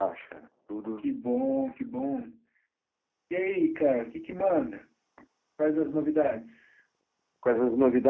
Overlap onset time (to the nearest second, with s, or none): none